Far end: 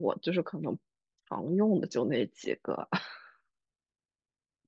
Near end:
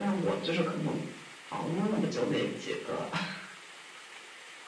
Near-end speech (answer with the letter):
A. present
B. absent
B